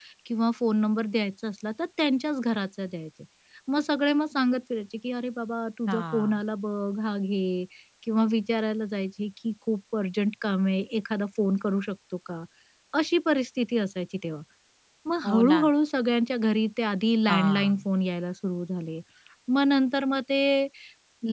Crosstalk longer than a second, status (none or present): none